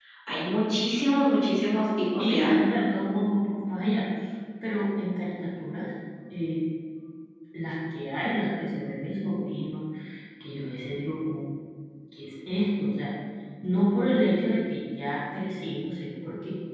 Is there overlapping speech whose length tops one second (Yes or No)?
No